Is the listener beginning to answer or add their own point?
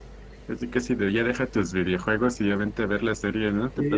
Yes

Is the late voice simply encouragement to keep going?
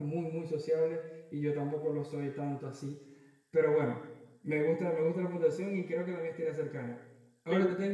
No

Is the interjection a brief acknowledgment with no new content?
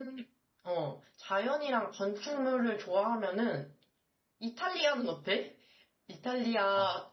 Yes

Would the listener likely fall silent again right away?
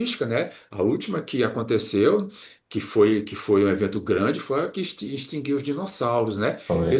Yes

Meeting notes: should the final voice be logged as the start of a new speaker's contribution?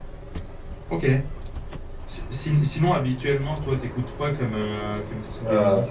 Yes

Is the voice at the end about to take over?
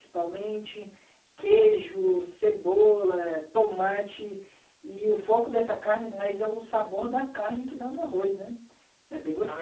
Yes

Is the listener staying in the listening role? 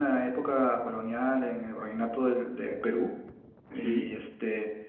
Yes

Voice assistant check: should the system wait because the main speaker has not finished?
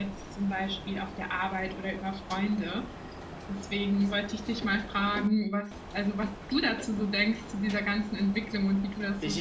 No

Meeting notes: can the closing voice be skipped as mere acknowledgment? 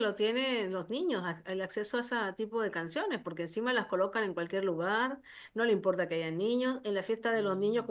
Yes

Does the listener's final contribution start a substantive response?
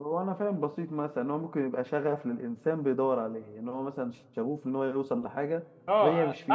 Yes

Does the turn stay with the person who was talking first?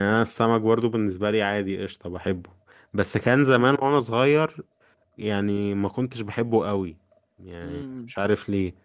Yes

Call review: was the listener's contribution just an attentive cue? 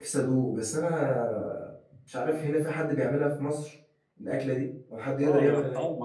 No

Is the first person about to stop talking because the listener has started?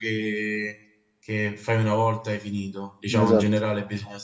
No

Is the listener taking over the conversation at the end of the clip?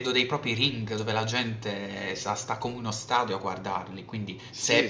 No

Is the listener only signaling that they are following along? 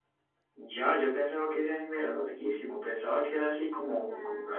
Yes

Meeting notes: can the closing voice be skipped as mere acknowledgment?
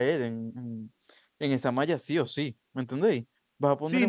No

